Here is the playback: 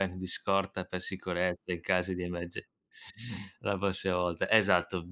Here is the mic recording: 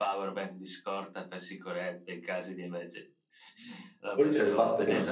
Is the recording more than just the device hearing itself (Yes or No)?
Yes